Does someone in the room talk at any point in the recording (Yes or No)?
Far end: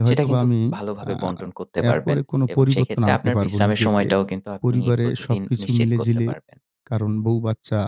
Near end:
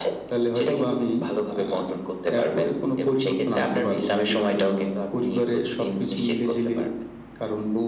No